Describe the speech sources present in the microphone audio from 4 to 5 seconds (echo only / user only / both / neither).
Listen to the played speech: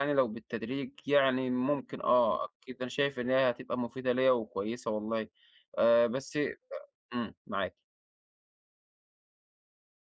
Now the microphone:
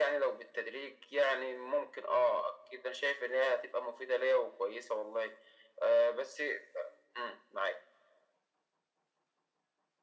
echo only